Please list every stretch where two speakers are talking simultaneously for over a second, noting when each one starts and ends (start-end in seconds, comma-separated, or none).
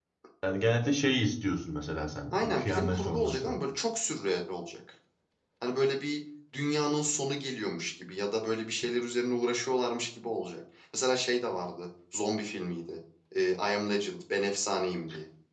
2.3-3.5